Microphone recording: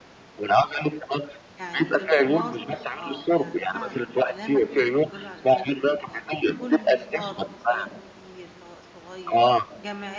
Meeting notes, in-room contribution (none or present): present